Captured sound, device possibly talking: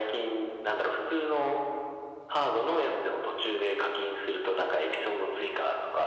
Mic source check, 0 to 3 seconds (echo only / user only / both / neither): echo only